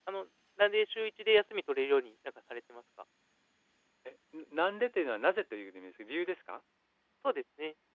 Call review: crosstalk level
none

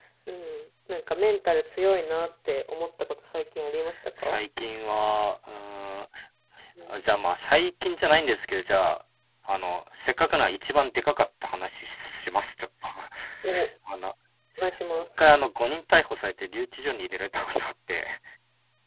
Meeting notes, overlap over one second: none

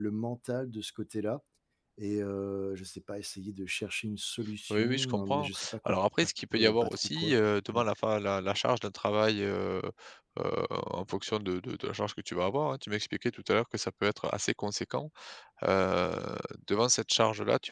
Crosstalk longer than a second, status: present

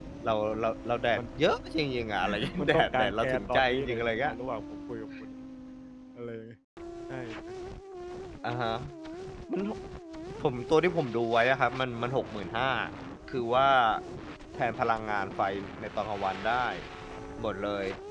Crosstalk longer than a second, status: present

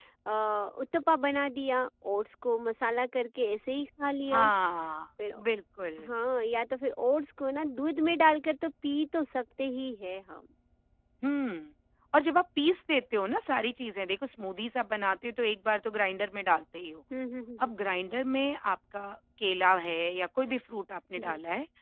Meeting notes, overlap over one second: none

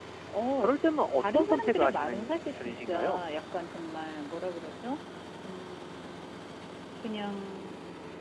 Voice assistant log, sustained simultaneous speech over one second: present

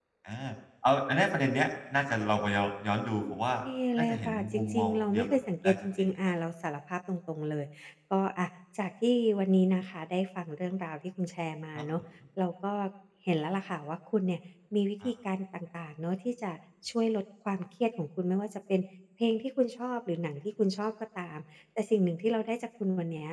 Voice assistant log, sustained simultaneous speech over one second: present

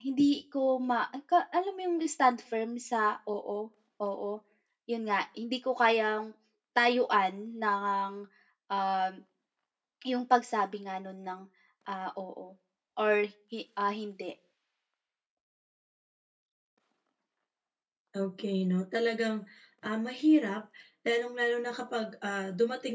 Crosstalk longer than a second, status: none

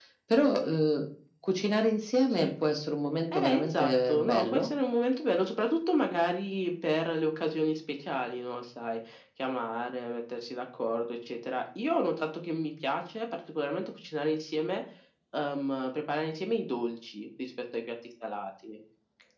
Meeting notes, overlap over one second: present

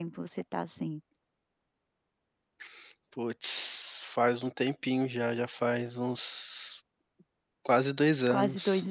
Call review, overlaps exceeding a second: none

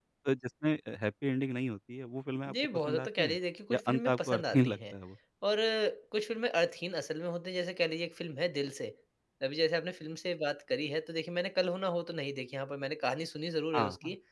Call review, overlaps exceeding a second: present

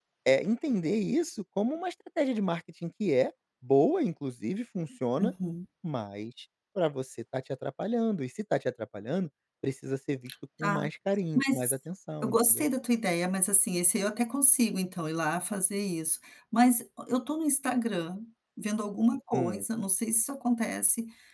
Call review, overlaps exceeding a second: none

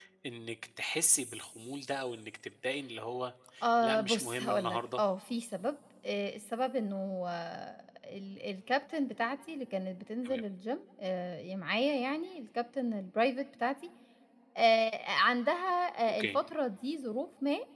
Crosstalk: present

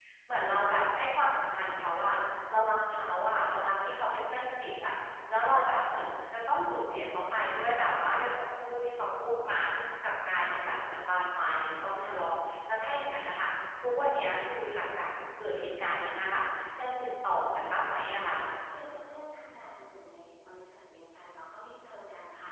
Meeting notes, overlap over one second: none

